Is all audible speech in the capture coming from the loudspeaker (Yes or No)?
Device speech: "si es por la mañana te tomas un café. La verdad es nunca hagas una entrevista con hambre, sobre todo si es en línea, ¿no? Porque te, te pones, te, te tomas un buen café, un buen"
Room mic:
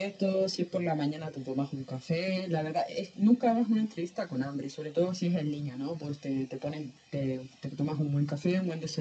Yes